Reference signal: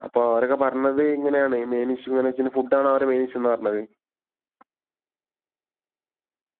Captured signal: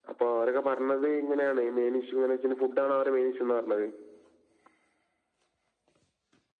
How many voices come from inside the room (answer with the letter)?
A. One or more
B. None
B